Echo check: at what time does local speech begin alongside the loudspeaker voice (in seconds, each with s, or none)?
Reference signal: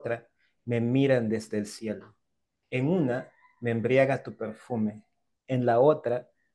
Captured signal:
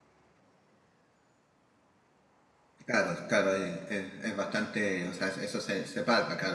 2.8 s